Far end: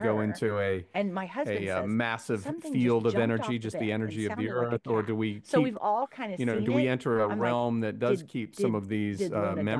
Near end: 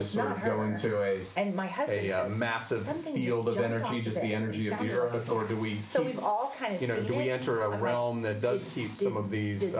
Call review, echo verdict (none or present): present